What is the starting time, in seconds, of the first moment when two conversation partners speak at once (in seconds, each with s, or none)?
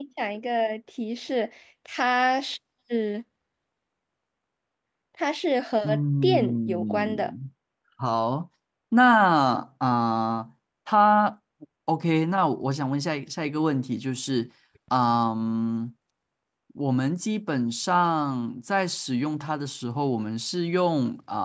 5.8 s